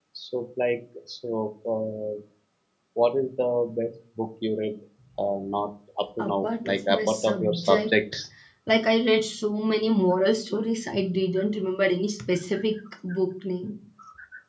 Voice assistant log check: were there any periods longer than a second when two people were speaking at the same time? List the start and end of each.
6.3-7.9

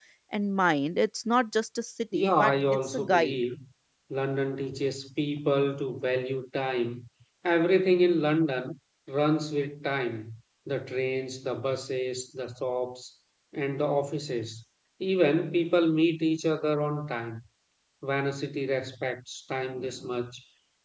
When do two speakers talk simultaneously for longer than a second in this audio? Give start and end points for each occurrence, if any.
2.1-3.4

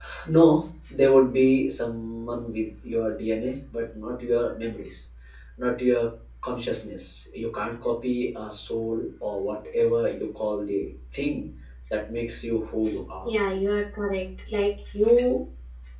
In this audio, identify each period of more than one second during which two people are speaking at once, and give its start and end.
none

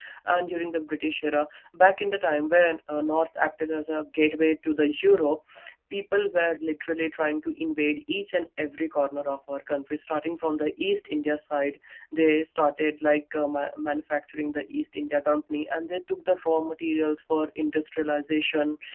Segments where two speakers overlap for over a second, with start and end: none

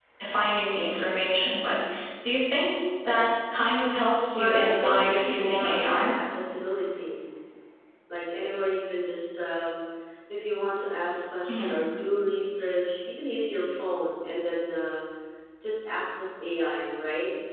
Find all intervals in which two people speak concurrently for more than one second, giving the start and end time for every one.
4.3-6.1

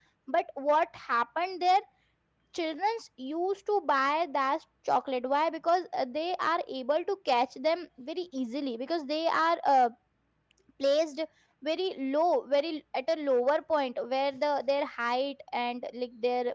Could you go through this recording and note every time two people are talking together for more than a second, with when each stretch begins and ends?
none

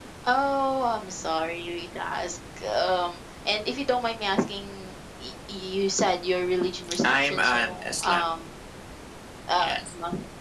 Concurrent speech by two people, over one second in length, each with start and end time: 7.0-8.2

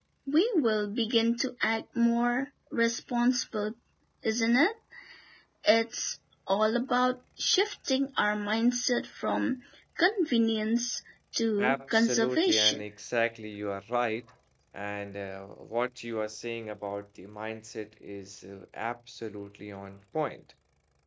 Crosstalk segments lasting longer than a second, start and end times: 11.6-12.8

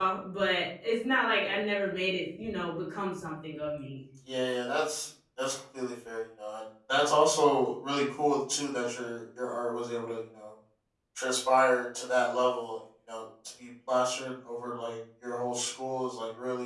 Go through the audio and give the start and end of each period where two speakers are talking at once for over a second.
none

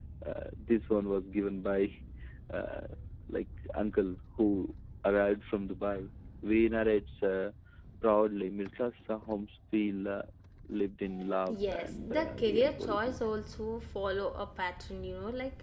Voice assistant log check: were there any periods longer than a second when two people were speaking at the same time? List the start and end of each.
11.6-13.2

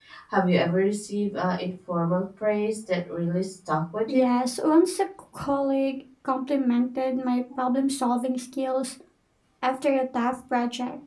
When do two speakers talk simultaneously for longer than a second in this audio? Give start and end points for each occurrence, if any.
none

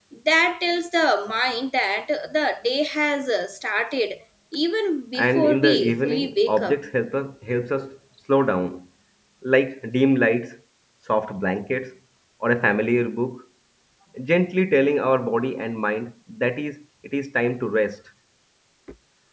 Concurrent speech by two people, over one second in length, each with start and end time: 5.2-6.8

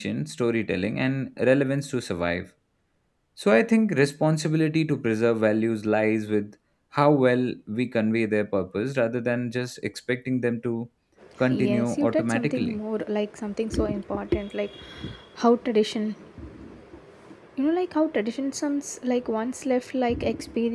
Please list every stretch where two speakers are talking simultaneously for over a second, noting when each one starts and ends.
11.5-12.8

